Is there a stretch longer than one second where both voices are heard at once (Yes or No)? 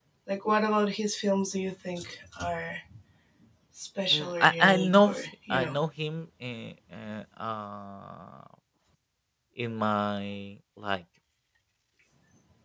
Yes